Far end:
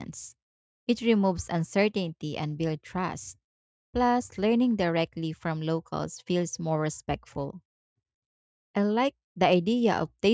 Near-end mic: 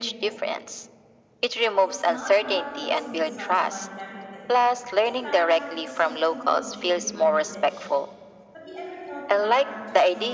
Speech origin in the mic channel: both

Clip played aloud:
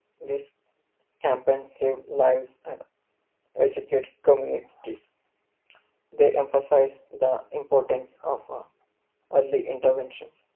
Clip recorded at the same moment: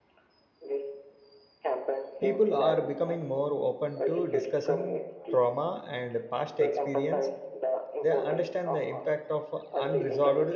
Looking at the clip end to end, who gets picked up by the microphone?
both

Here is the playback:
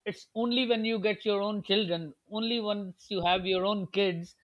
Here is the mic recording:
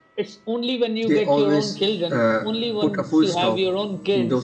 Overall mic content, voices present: both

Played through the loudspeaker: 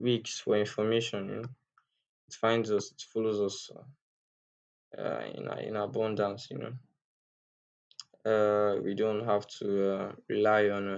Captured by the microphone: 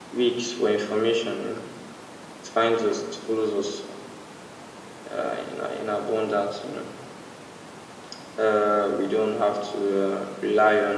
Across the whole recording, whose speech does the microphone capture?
echo only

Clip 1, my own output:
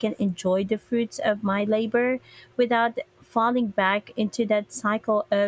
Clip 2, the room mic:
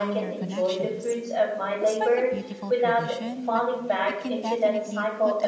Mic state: both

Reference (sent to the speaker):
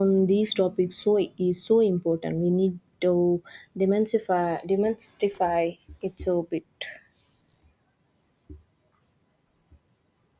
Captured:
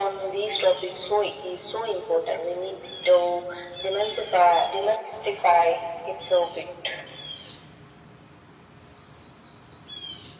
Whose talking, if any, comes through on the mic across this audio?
echo only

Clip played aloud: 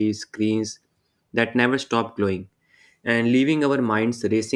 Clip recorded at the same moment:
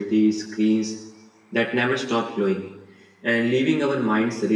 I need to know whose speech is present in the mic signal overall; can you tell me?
echo only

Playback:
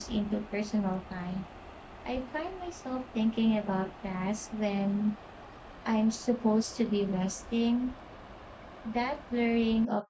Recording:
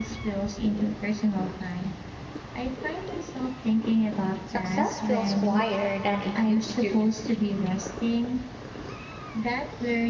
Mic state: both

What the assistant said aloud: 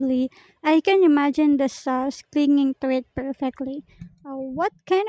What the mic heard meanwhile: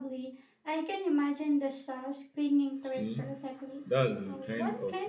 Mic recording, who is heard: both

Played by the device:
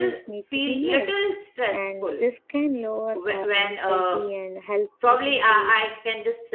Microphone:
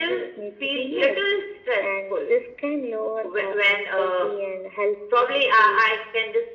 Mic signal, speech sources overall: echo only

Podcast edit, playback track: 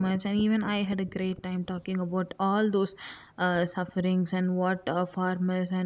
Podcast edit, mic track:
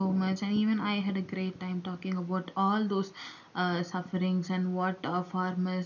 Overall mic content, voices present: echo only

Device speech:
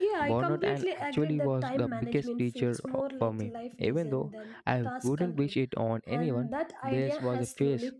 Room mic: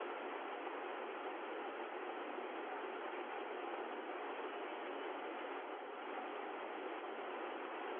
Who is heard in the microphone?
neither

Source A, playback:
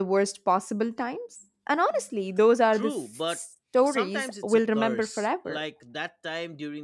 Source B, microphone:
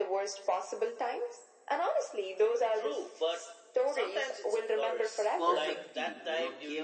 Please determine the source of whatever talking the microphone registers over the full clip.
both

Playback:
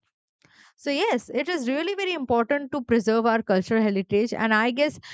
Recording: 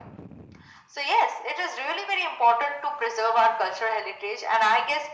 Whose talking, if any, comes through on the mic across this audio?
echo only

